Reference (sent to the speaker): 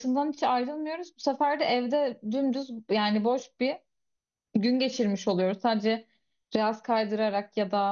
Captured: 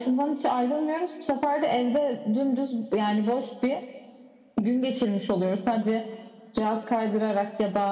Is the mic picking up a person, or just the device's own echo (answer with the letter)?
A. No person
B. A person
A